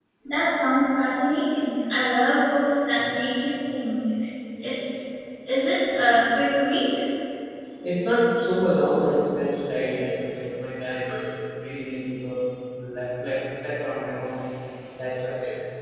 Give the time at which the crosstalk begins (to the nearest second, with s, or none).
none